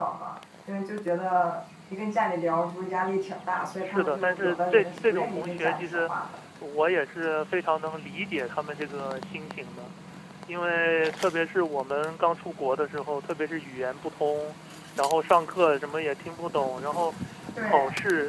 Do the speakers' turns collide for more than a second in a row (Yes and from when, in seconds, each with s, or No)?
Yes, from 3.6 s